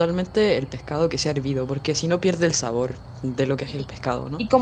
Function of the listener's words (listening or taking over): taking over